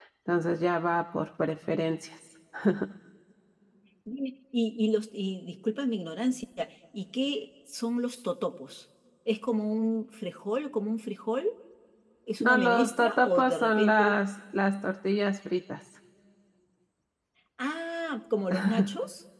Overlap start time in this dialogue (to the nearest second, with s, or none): 12 s